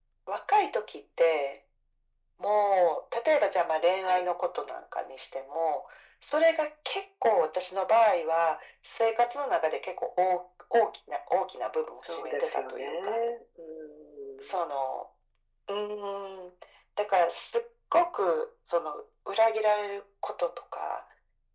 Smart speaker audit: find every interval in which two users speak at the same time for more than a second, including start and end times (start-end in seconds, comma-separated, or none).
11.9-13.2